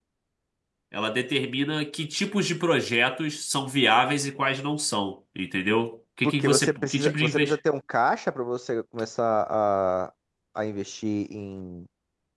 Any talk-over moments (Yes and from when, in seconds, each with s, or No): Yes, from 6.2 s